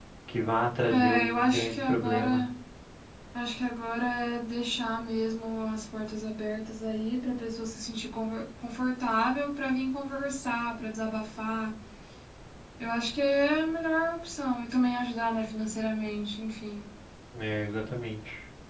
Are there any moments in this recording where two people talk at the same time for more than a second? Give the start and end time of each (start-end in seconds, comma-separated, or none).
0.9-2.4